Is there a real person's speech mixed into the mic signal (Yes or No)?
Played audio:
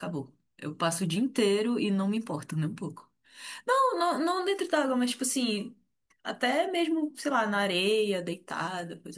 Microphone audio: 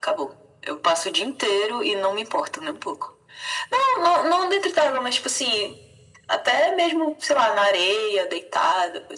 No